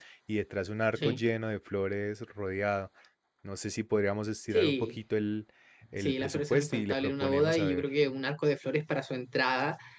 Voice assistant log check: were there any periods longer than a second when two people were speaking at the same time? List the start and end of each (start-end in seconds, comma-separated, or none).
6.0-7.9